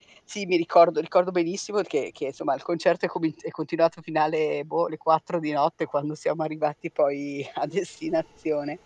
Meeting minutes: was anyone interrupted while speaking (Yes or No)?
No